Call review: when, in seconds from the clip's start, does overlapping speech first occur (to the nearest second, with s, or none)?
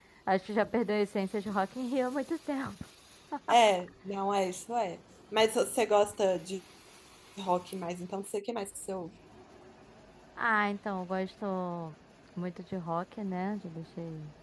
none